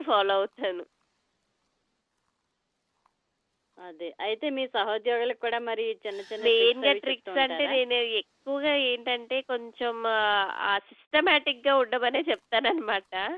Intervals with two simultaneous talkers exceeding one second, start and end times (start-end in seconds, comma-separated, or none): 6.4-7.7